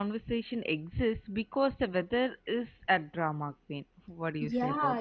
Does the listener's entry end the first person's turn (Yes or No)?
Yes